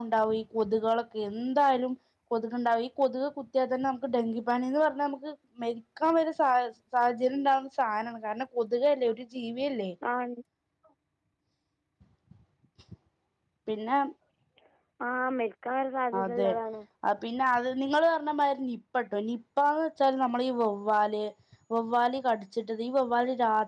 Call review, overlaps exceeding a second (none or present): none